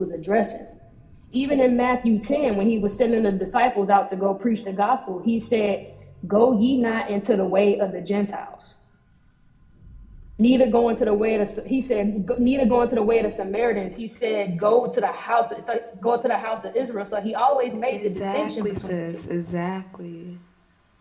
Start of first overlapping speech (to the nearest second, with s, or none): 18 s